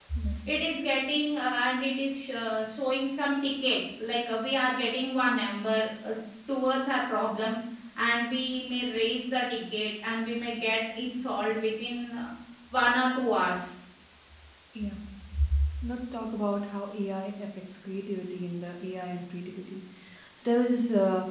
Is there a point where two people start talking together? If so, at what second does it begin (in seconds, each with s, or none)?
none